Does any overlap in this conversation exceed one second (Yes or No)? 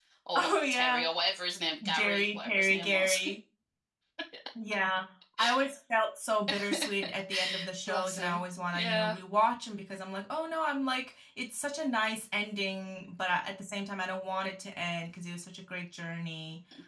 Yes